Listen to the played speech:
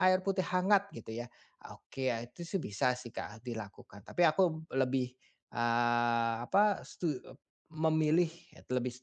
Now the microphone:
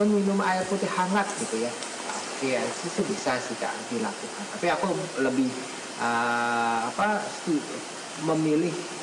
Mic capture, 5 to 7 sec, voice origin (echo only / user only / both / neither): echo only